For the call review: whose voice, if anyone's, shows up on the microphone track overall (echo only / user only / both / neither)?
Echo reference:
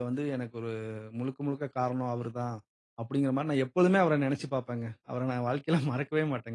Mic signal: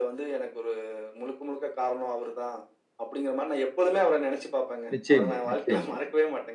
both